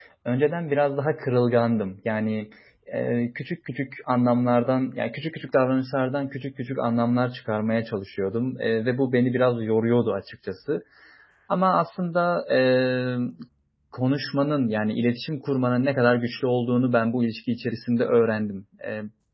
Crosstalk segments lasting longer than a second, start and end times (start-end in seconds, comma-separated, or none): none